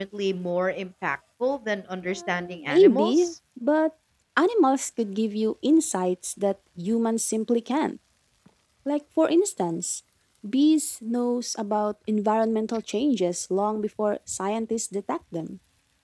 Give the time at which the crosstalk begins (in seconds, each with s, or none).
2.0 s